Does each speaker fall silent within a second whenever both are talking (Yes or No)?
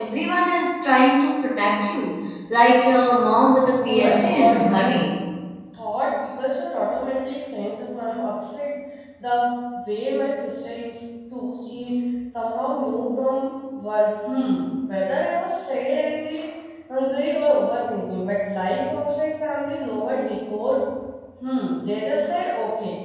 No